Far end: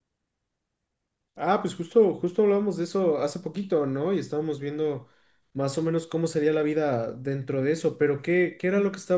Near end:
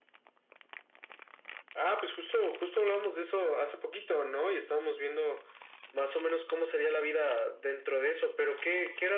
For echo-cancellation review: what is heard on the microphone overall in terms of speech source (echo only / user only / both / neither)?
echo only